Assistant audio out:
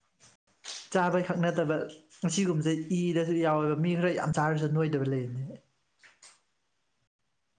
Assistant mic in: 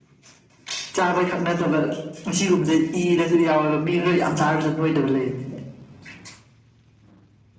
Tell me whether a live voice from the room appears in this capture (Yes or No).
Yes